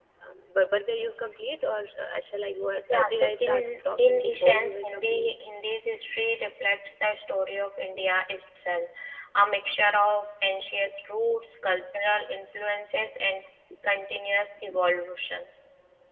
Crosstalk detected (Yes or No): Yes